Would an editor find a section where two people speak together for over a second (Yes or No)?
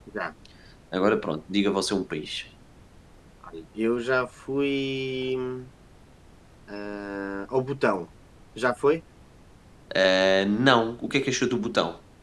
No